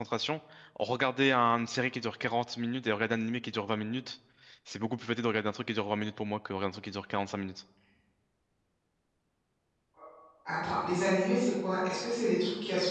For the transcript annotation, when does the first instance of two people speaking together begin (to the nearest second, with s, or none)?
none